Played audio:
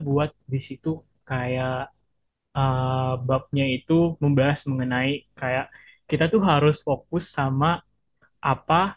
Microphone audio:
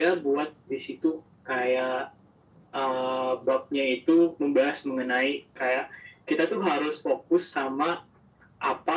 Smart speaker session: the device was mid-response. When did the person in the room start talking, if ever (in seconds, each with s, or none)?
none